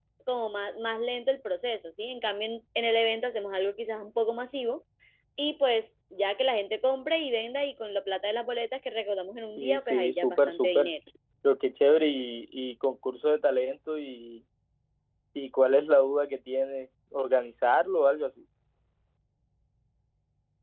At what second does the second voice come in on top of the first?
9.6 s

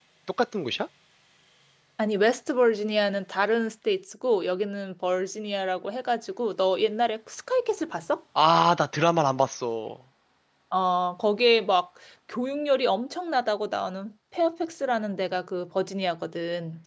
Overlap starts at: none

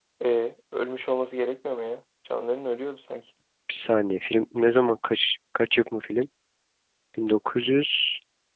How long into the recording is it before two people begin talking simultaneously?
none

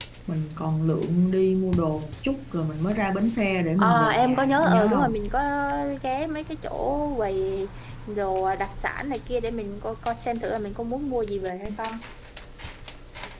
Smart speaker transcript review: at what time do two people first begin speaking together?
3.8 s

